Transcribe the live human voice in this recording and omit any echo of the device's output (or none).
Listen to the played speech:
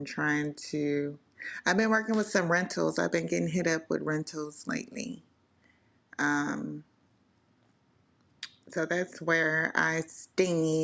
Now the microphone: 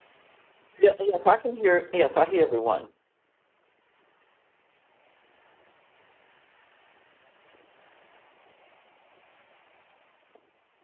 yeah, yes i can hear yes i hear everyone